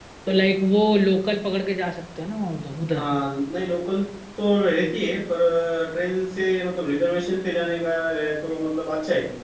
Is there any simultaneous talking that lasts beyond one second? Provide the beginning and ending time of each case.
none

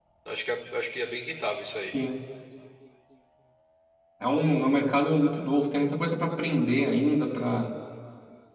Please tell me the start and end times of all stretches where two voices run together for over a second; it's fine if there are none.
none

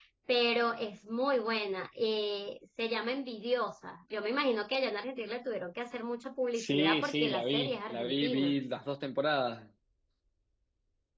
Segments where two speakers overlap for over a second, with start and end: 6.5-8.5

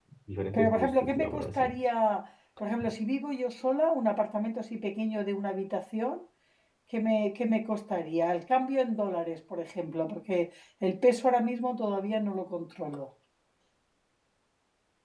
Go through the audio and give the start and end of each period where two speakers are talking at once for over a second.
0.5-1.7

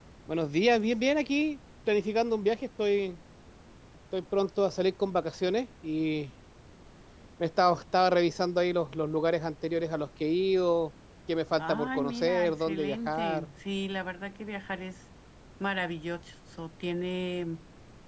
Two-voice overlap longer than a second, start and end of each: 11.6-13.5

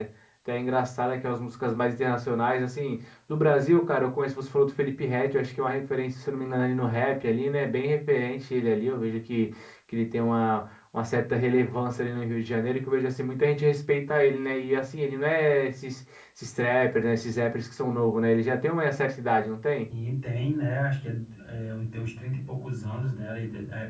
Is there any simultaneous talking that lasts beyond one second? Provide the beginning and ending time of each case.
none

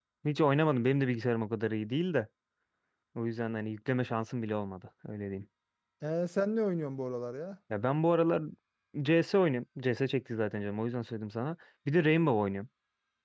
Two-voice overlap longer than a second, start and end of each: none

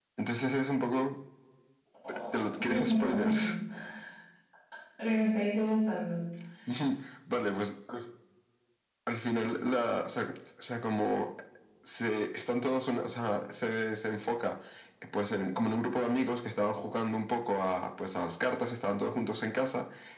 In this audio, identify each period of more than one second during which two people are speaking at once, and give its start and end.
2.3-3.5

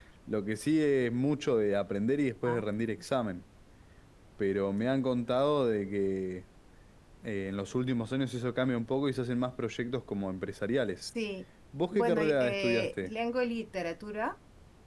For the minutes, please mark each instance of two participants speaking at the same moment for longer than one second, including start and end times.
11.9-13.1

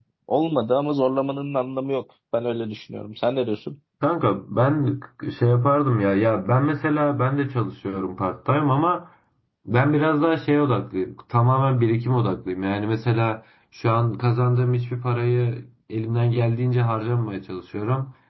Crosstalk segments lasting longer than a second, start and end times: none

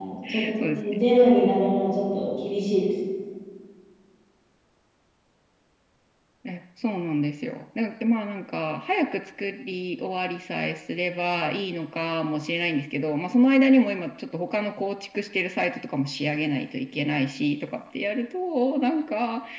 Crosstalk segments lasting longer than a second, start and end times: none

